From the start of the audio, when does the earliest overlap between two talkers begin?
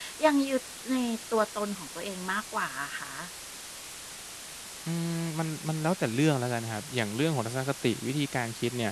none

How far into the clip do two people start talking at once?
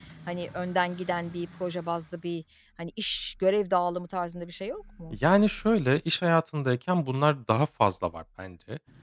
none

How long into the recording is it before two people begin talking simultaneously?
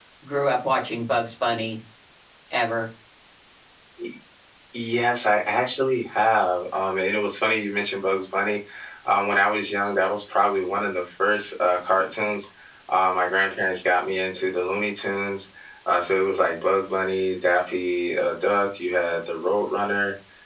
none

